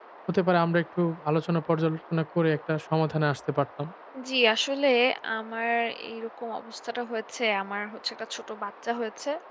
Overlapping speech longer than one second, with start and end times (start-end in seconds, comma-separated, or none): none